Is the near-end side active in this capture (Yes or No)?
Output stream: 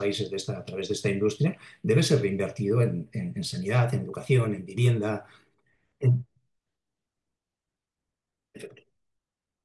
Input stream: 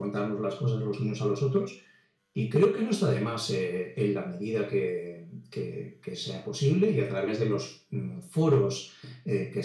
Yes